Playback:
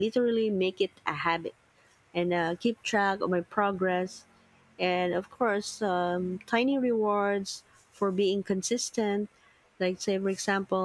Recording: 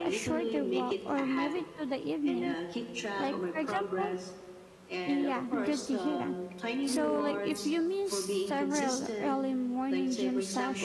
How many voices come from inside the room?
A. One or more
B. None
A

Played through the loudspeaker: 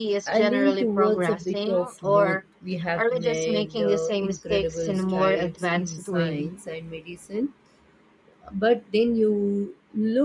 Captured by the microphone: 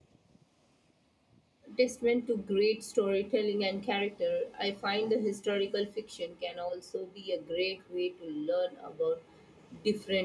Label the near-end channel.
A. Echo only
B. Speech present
B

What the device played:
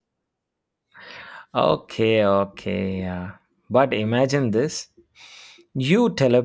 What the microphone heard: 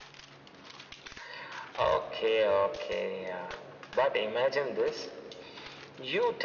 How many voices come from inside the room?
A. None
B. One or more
A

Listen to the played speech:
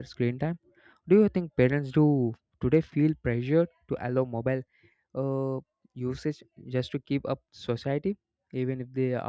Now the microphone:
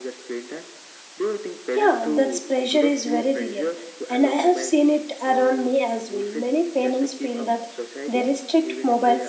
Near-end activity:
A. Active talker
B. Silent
A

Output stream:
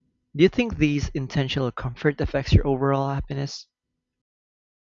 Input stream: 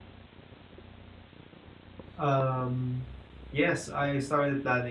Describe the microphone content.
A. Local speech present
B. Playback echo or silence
A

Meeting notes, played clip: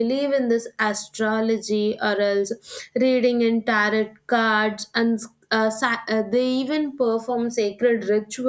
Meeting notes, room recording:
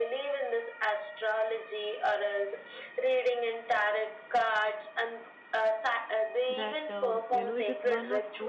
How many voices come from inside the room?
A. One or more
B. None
A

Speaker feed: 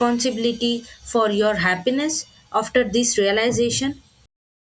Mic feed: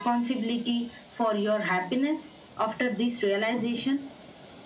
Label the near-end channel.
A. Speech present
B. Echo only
B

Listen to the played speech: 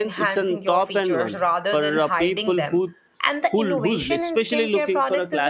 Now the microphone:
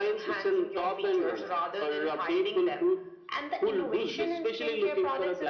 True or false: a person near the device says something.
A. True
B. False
B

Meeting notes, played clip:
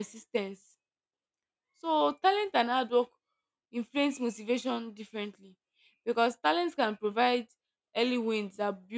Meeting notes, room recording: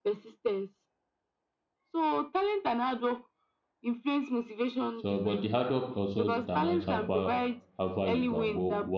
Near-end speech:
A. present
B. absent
A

